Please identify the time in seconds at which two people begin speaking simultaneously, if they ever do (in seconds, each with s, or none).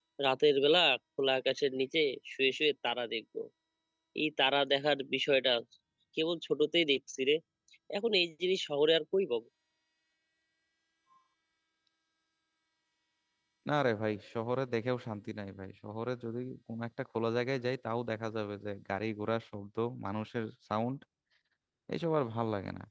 none